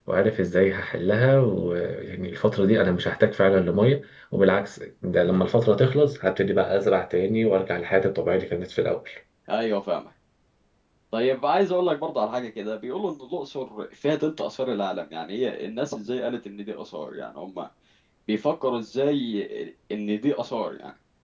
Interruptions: none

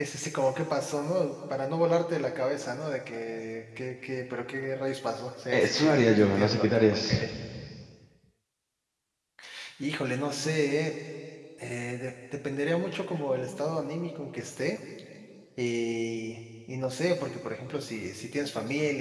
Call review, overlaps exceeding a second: present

